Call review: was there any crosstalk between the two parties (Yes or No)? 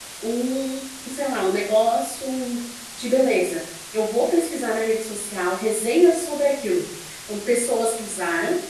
No